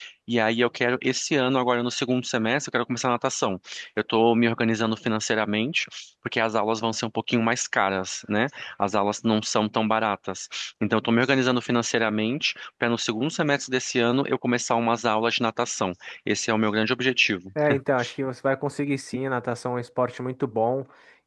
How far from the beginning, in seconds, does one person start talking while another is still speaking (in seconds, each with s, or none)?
none